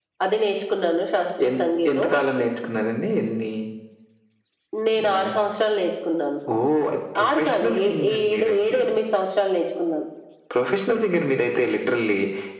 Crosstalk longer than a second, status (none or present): present